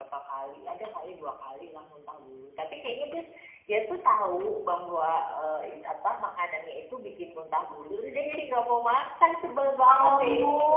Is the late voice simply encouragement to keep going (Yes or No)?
No